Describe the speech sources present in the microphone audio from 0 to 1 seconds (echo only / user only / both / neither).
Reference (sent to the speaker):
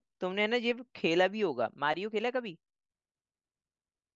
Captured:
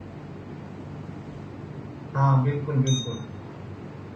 neither